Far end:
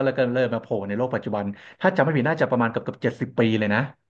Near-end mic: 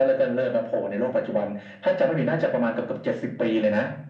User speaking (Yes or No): No